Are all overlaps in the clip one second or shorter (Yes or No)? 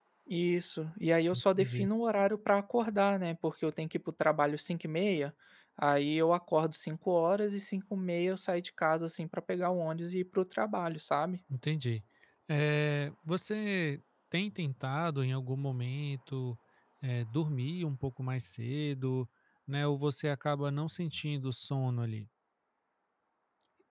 Yes